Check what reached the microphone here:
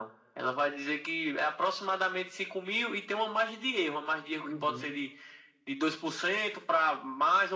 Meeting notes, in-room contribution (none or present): present